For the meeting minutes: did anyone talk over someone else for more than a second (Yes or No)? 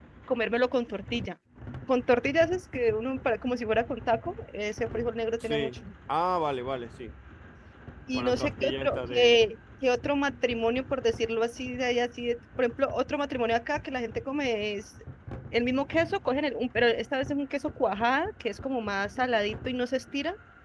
Yes